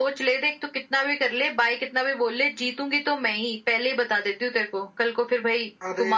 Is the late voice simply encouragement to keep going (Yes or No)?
No